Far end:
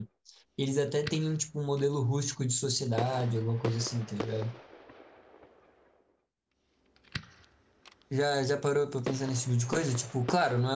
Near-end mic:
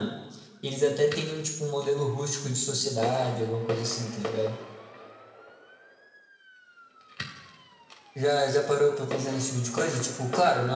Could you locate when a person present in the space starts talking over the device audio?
none

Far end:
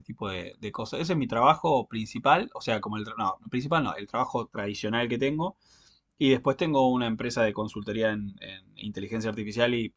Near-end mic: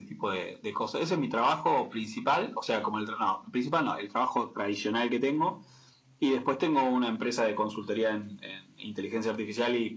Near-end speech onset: none

